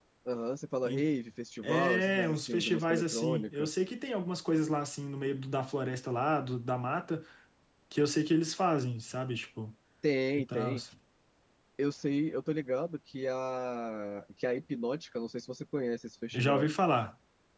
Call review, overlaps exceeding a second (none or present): present